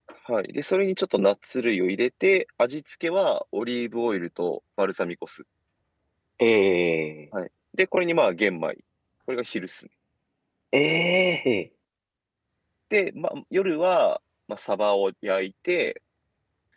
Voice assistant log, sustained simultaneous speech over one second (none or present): none